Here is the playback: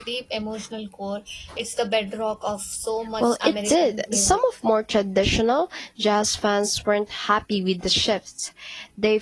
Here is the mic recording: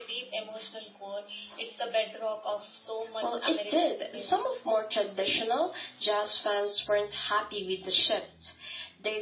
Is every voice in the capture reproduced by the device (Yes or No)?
Yes